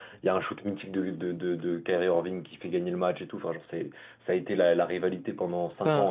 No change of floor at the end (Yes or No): No